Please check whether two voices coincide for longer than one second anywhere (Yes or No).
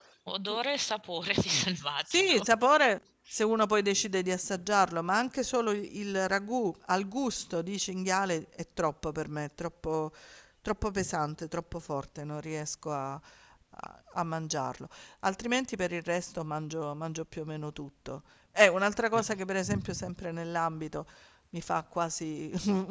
No